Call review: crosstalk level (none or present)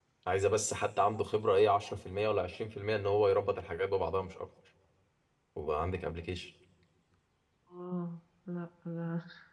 none